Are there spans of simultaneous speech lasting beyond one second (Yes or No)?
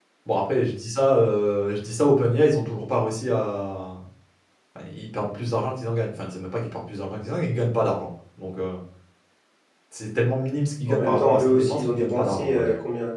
Yes